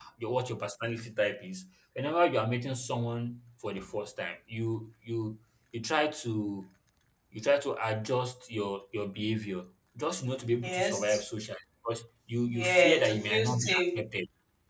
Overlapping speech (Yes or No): Yes